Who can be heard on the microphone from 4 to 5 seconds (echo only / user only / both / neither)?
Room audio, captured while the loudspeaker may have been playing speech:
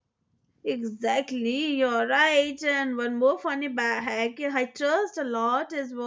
user only